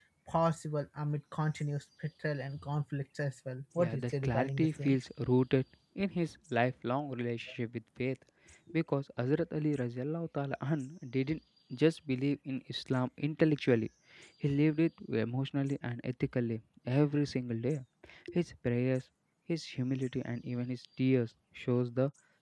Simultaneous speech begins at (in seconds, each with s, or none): 3.8 s